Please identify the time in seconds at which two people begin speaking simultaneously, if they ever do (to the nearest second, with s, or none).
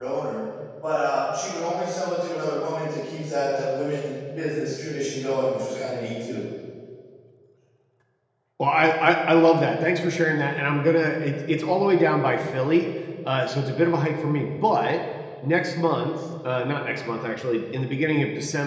none